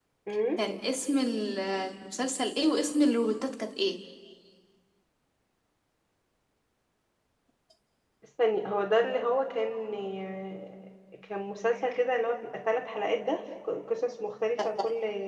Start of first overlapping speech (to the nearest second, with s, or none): none